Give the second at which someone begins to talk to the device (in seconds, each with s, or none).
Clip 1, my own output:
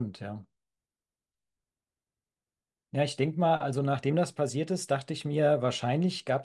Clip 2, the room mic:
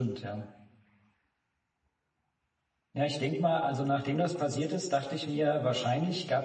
none